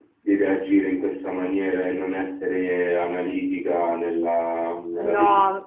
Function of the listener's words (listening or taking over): taking over